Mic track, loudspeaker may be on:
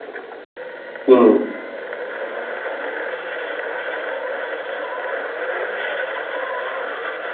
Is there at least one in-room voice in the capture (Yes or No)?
Yes